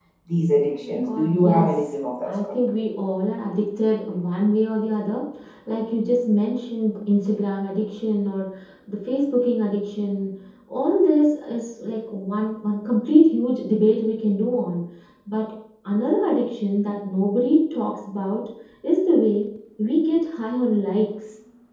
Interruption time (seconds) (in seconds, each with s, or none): 0.8 s